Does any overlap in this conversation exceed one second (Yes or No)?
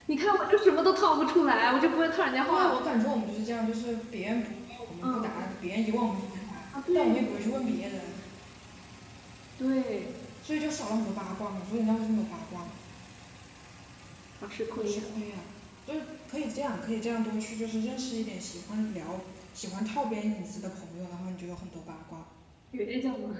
No